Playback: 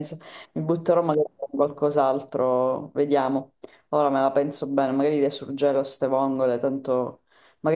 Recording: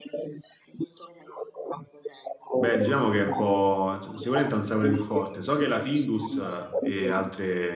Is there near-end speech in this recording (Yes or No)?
Yes